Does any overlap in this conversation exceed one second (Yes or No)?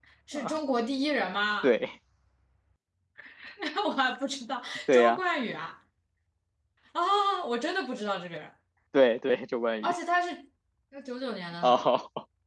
No